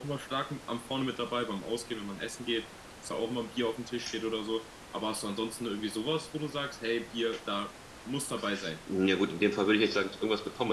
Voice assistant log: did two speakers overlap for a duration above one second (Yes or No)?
No